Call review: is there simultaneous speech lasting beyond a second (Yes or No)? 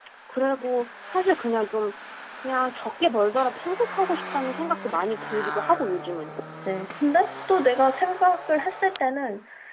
No